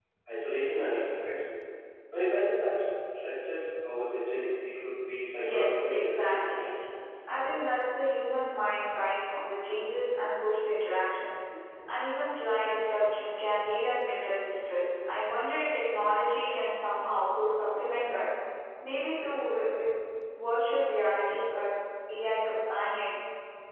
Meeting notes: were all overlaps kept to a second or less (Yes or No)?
No